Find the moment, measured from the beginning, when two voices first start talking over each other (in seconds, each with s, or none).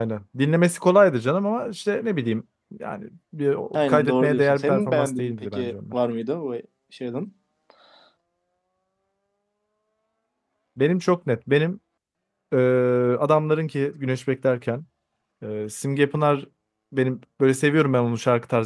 3.7 s